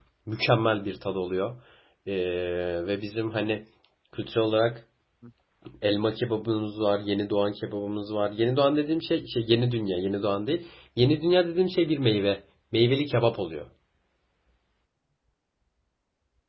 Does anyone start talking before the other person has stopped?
No

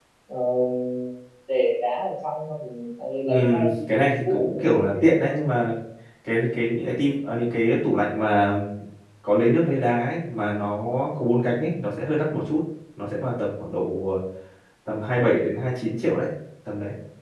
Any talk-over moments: Yes, from 3.3 s

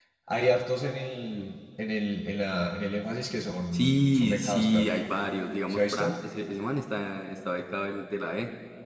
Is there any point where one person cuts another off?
Yes, from 3.7 s

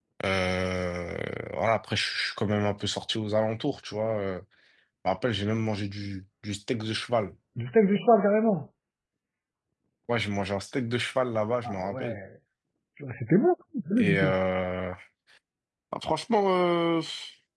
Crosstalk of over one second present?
No

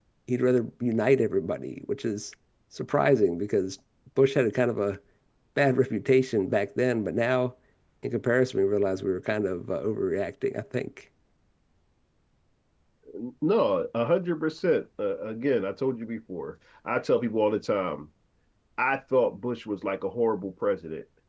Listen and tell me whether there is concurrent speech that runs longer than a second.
No

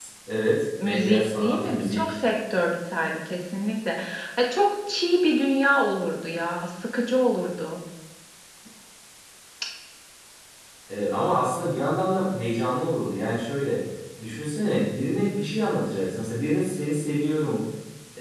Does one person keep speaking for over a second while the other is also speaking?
Yes, from 0.8 s

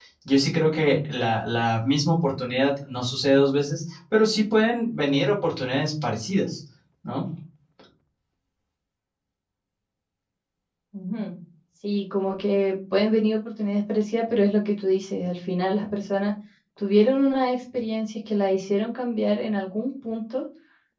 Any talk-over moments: No

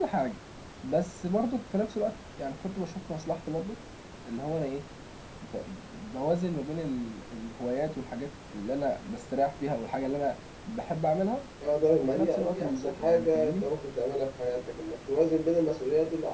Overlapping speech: Yes, from 12.0 s

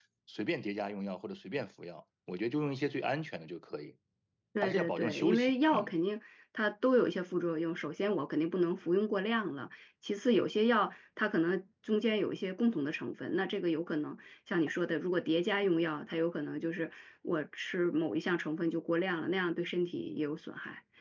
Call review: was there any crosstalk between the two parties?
Yes, from 4.6 s

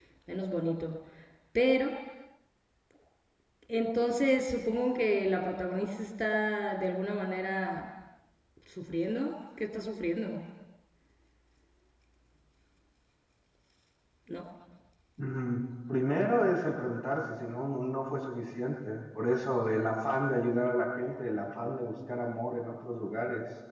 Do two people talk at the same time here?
No

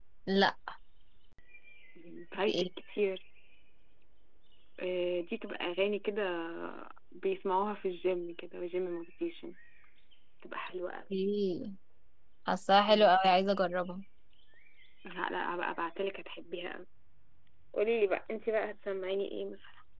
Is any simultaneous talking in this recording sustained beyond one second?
No

